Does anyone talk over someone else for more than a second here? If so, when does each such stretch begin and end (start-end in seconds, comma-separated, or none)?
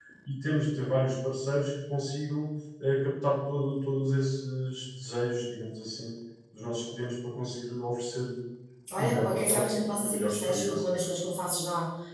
9.0-10.9